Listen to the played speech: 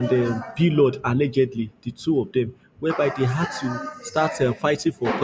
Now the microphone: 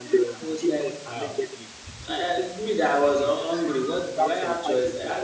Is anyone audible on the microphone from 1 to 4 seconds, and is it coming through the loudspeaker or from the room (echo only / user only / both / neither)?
both